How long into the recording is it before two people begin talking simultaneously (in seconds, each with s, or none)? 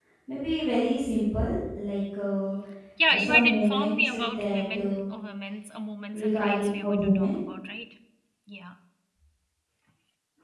3.1 s